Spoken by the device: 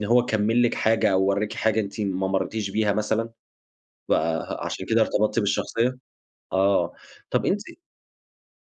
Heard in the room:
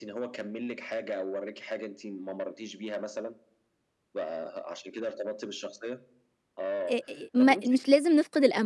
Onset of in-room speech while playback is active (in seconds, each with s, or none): 6.9 s